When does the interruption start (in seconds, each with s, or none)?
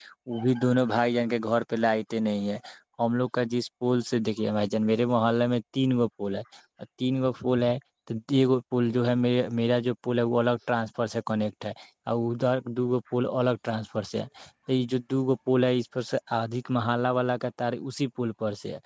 none